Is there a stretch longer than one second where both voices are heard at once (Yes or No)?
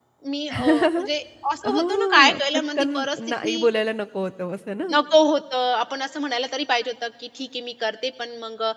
Yes